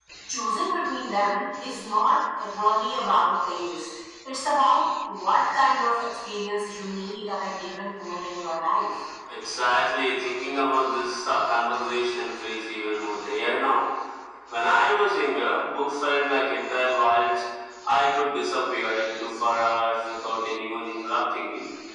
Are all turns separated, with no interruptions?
Yes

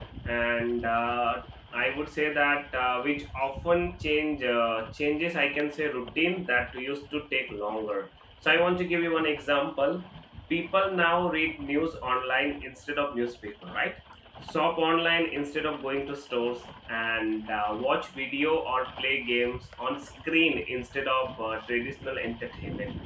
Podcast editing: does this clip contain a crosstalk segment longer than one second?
No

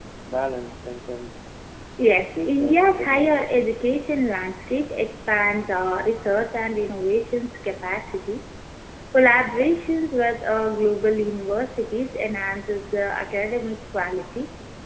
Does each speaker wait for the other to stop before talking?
No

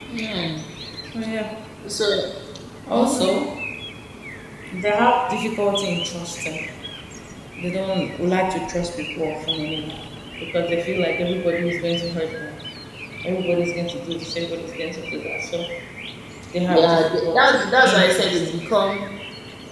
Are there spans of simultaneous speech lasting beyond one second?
Yes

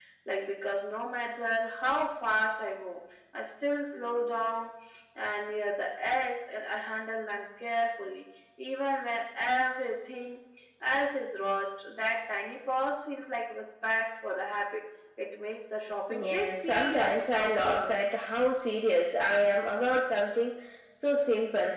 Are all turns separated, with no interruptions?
No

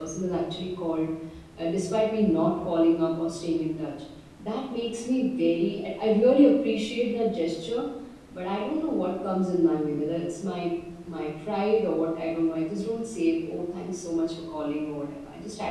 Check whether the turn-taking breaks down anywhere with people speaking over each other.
No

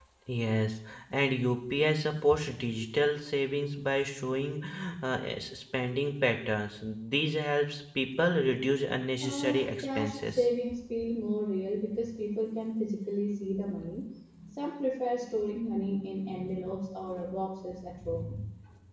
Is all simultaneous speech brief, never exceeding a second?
No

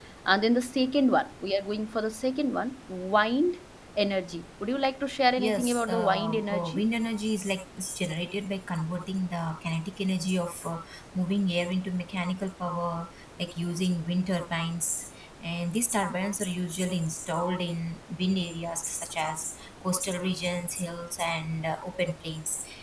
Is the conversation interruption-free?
No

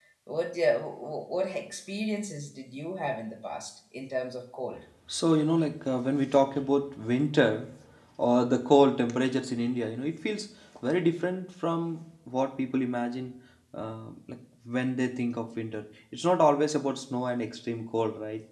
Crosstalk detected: No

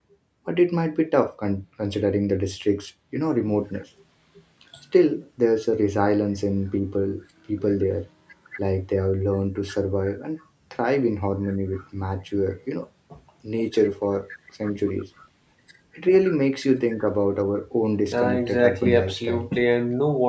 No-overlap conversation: No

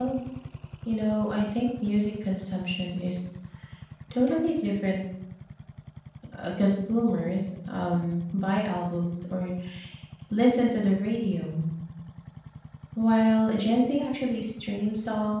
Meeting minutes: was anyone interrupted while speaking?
No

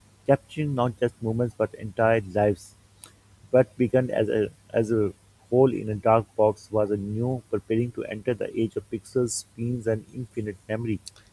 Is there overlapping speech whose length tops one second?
No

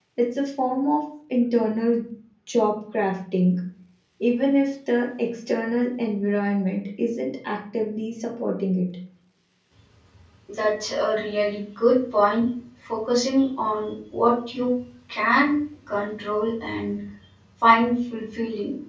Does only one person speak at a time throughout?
Yes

